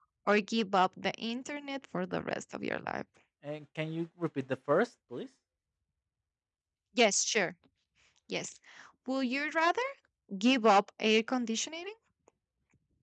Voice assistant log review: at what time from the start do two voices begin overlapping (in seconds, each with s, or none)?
none